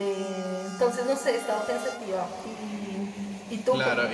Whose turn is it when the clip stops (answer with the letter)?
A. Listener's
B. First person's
A